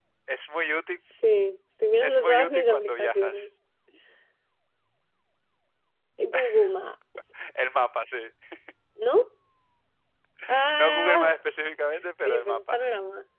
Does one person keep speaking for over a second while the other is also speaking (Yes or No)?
Yes